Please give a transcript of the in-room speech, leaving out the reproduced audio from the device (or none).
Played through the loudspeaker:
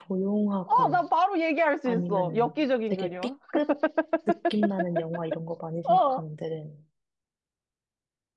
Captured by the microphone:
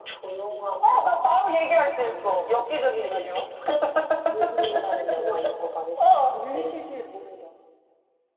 모든 거? 뭐 그거지. 릴리슈슈의 모든 거.